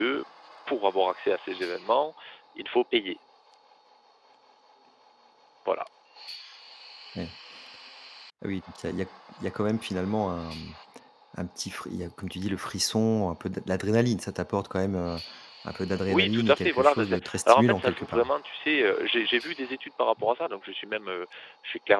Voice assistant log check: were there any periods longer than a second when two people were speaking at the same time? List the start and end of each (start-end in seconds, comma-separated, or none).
16.1-18.3